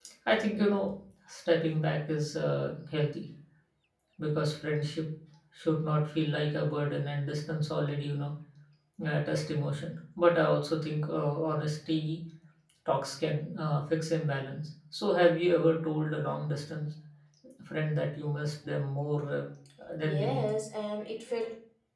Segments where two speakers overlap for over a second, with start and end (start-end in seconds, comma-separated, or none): none